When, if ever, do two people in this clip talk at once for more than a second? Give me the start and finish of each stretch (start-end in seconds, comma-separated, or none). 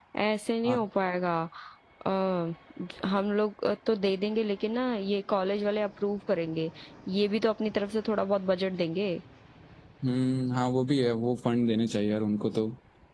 none